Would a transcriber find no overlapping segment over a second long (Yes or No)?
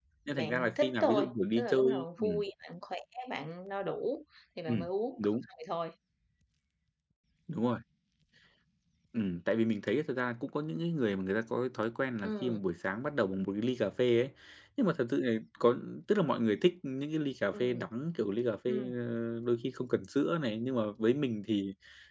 No